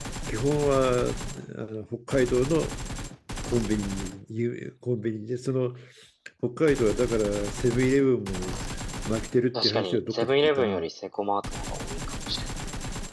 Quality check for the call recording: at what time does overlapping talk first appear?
9.5 s

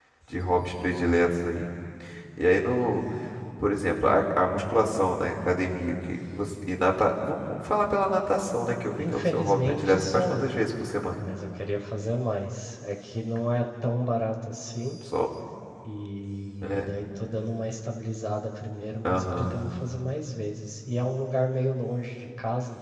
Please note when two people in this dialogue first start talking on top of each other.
9.0 s

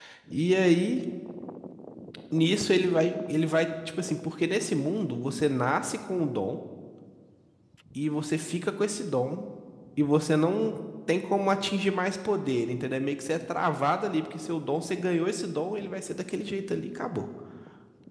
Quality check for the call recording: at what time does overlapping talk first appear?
none

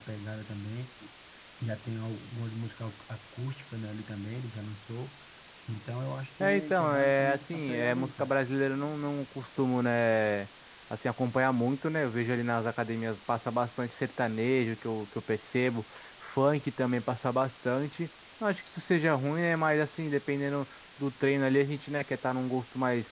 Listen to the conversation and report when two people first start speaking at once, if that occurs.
6.4 s

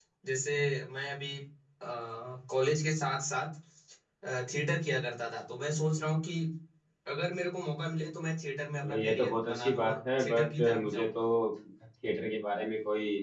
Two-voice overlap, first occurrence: 8.8 s

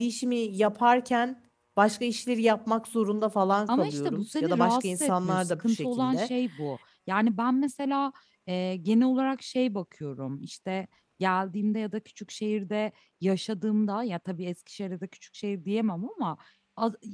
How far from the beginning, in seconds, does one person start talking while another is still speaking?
3.7 s

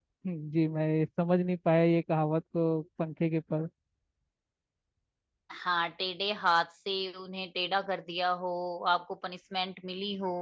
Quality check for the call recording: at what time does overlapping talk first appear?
none

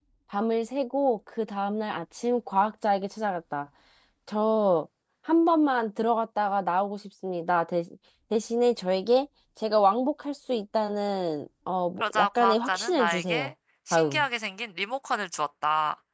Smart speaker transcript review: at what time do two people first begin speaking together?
12.0 s

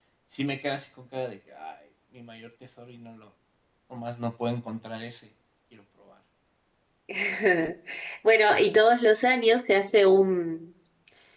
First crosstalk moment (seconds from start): none

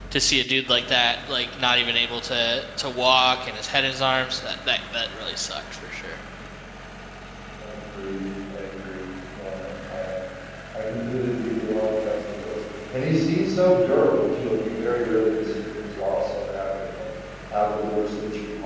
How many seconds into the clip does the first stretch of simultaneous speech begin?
none

